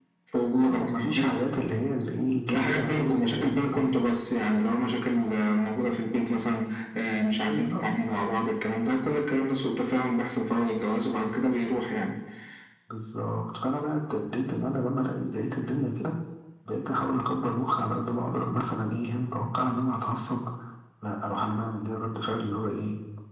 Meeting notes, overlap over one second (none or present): present